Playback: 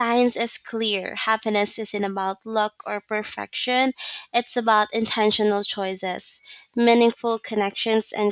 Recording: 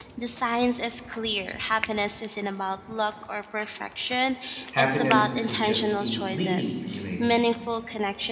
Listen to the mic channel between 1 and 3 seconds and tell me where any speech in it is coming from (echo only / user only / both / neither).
echo only